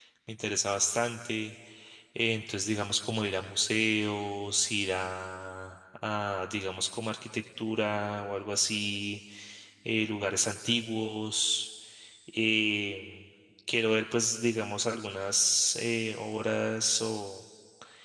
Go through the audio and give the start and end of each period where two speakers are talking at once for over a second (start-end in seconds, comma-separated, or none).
none